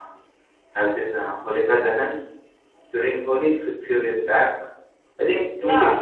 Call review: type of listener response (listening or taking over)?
taking over